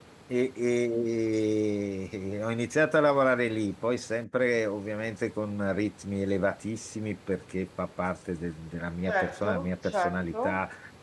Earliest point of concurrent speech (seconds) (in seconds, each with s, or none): 9.1 s